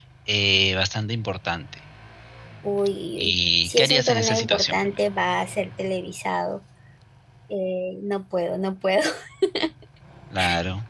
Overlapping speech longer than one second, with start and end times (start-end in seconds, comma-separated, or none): 3.2-5.0